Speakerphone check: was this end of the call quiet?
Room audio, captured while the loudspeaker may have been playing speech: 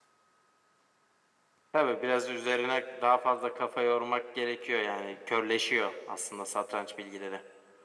Yes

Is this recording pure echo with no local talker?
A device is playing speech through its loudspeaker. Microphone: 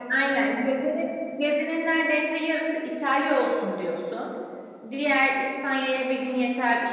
Yes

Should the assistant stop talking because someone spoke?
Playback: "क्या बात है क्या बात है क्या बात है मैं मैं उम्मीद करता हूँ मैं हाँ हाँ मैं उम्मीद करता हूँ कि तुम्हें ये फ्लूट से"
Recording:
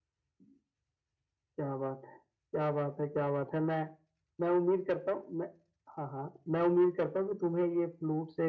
No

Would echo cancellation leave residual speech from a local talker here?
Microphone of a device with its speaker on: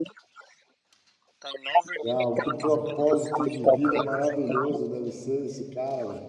Yes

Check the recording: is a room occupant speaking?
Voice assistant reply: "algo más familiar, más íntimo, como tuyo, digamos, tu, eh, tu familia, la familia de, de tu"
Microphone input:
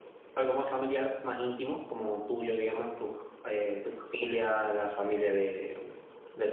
No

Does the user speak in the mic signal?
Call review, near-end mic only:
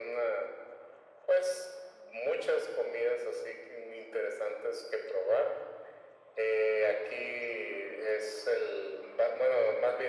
No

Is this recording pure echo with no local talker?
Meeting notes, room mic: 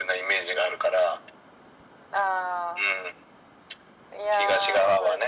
Yes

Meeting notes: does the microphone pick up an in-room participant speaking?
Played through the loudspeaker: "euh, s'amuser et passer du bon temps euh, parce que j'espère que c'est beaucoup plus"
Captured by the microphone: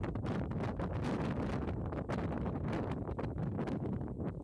No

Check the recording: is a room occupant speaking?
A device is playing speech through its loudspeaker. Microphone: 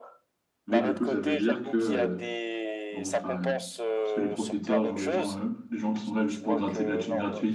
Yes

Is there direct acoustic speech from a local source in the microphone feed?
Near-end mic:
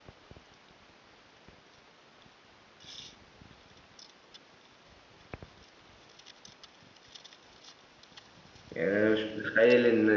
Yes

